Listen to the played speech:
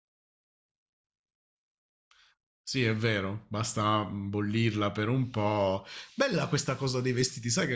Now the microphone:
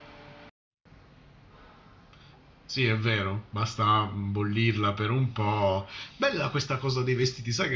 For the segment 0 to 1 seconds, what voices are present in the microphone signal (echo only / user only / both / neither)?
neither